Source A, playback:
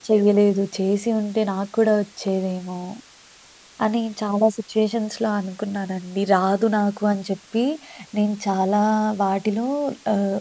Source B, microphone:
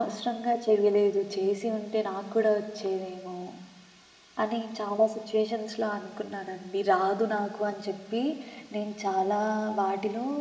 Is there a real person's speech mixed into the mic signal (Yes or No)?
No